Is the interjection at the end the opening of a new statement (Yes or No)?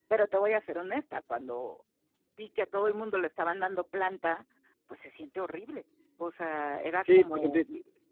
Yes